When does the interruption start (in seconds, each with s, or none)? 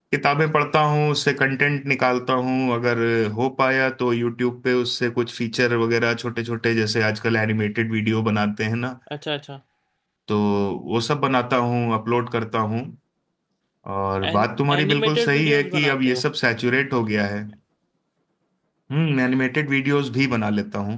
14.3 s